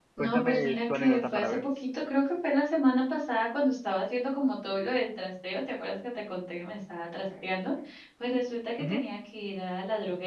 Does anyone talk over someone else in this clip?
Yes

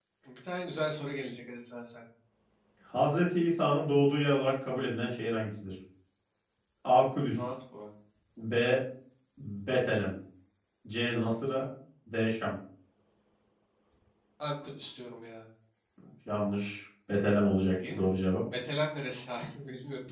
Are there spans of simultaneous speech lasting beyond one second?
No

